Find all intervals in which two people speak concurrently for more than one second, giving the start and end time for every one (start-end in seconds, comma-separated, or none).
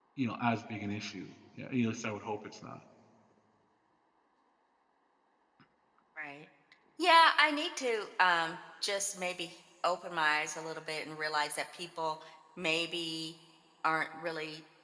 none